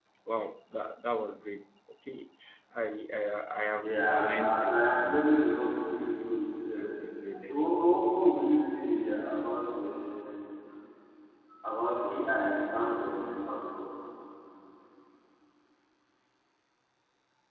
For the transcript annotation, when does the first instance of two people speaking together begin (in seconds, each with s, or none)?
3.8 s